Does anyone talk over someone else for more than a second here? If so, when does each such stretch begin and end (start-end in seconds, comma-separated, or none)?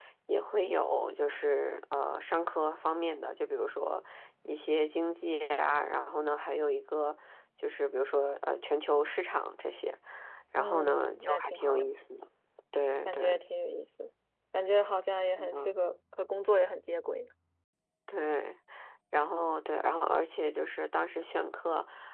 10.6-11.9